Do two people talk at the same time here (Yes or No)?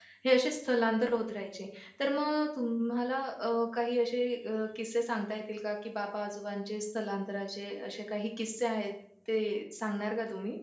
No